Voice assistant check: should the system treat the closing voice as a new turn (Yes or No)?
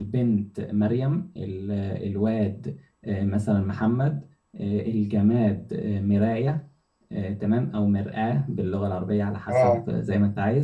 No